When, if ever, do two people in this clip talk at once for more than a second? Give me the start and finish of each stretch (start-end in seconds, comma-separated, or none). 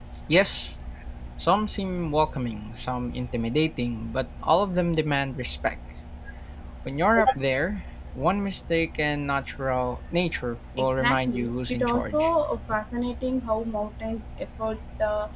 10.8-12.3